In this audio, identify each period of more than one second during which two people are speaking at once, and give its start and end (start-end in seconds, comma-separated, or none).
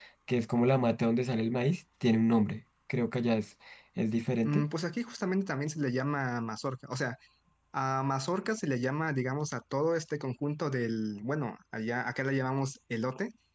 none